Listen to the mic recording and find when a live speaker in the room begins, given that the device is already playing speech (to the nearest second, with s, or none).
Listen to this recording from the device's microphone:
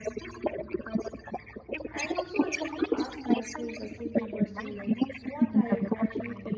2 s